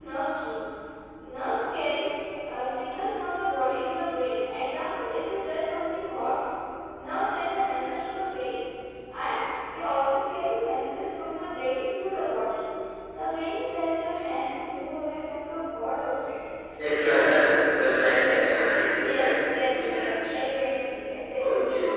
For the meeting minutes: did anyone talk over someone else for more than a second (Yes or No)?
Yes